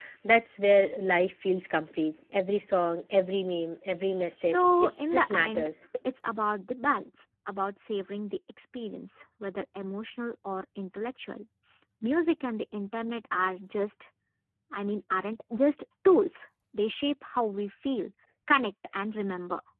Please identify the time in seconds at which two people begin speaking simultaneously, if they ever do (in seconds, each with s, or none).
4.4 s